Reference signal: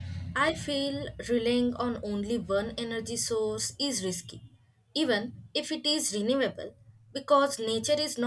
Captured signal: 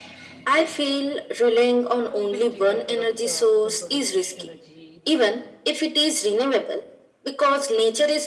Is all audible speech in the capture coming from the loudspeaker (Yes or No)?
No